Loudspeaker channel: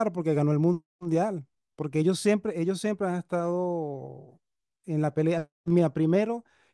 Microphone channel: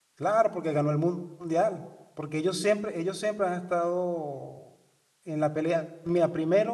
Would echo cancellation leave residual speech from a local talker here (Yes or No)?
No